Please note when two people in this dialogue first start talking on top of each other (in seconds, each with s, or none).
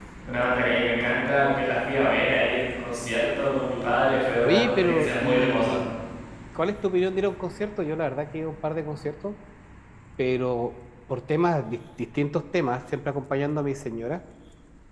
4.4 s